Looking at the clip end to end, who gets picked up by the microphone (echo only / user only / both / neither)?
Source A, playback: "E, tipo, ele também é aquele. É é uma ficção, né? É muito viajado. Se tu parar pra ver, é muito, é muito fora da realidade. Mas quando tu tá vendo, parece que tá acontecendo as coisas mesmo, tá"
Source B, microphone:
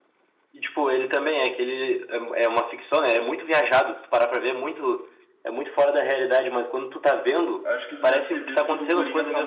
both